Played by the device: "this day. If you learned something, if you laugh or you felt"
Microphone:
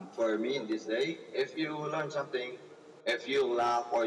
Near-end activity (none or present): none